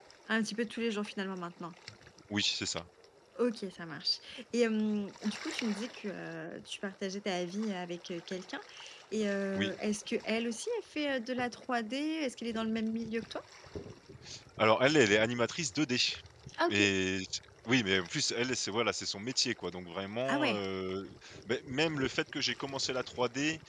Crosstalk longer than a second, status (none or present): none